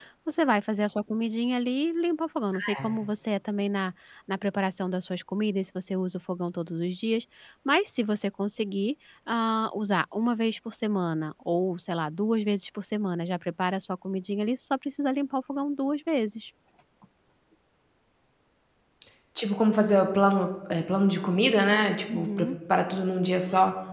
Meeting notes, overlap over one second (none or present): none